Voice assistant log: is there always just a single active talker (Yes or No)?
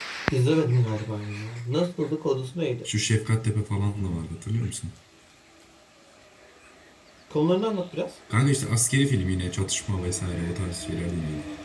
Yes